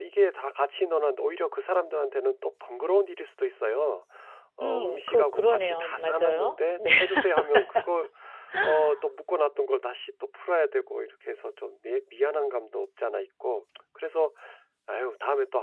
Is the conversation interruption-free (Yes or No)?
No